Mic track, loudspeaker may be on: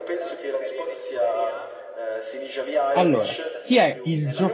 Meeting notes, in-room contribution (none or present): present